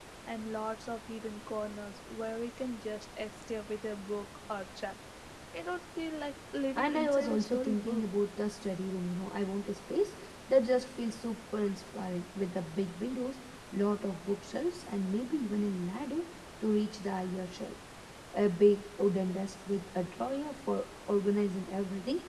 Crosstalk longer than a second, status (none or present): present